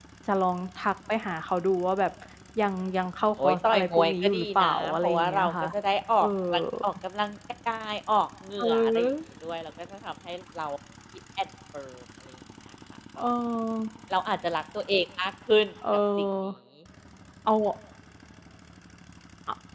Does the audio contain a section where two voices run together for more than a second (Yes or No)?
Yes